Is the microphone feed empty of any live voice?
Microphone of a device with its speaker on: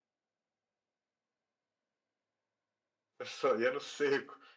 No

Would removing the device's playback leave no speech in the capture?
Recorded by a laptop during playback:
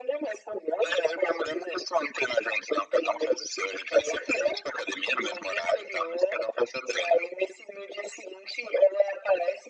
Yes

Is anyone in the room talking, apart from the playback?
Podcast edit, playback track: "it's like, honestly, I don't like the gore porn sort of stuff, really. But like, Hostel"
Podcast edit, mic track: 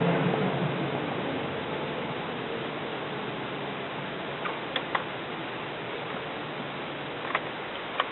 No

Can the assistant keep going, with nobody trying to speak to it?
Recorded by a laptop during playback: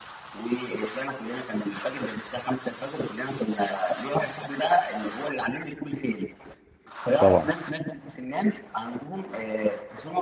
No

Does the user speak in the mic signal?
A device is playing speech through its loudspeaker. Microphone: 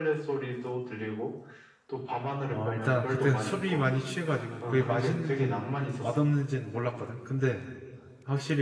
Yes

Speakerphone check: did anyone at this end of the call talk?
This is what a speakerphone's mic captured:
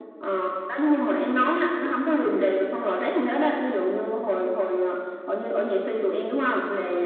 Yes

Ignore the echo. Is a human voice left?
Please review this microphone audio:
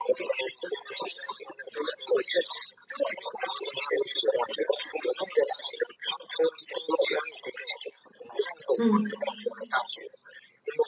Yes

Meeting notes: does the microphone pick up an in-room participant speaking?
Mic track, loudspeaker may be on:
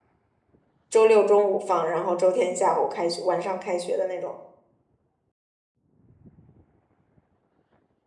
Yes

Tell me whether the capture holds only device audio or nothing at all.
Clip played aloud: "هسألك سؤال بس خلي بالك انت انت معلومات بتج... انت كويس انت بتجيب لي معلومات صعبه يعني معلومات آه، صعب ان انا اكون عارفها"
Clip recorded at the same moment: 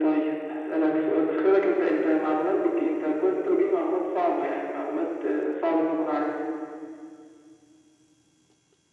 Yes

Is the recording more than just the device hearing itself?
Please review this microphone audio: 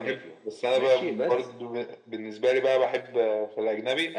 No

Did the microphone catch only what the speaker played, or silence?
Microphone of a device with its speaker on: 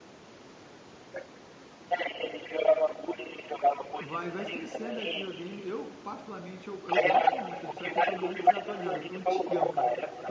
No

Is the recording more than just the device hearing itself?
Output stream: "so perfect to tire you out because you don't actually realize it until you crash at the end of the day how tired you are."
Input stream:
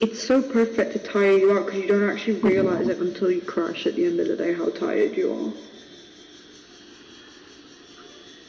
Yes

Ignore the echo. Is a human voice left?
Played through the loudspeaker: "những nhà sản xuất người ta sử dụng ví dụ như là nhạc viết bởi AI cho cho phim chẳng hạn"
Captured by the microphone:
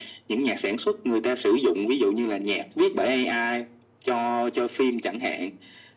No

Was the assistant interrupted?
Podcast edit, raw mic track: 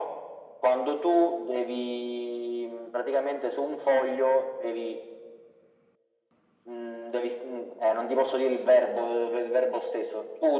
No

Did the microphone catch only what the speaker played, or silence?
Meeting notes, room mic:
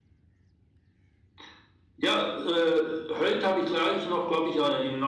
Yes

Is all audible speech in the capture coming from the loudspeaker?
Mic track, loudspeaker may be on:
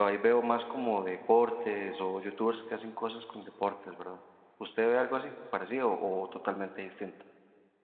No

